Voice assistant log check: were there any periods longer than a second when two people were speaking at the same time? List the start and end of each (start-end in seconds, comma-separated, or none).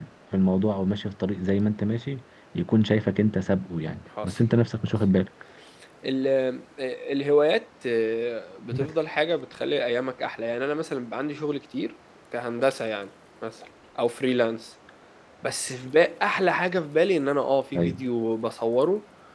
none